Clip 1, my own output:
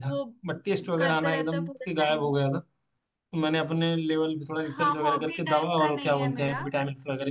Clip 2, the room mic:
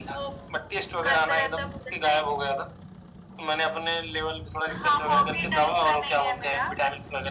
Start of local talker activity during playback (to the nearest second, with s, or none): none